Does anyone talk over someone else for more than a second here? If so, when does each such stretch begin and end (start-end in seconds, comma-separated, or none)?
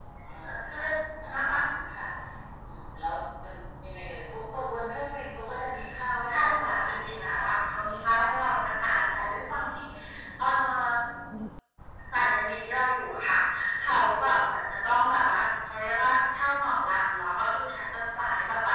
6.3-7.5